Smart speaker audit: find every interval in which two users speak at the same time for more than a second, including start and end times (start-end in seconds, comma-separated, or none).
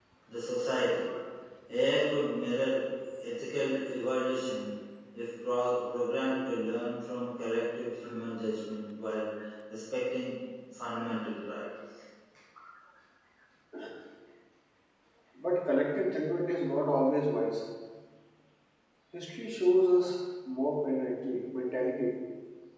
none